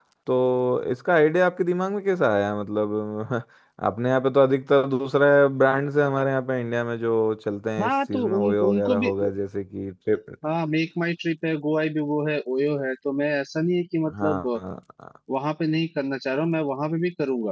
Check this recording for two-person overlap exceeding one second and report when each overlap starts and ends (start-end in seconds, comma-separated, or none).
7.8-9.1